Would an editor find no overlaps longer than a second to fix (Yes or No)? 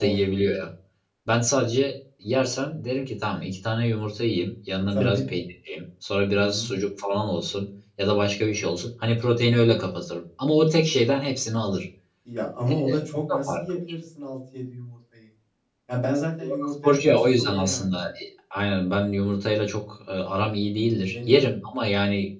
No